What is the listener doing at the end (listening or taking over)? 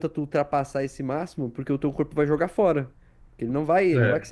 listening